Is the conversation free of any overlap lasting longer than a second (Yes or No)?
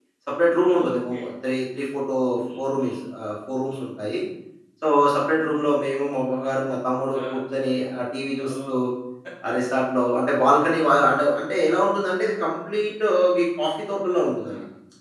Yes